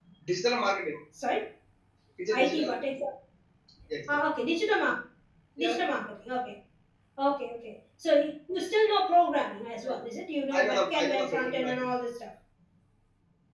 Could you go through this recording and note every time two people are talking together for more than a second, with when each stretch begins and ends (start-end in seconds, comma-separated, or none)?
10.5-11.9